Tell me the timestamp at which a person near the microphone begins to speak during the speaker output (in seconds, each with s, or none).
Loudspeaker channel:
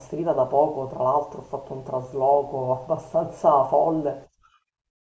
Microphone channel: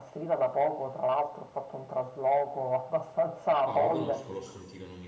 3.7 s